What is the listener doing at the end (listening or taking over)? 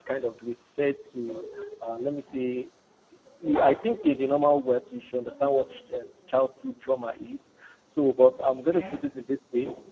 listening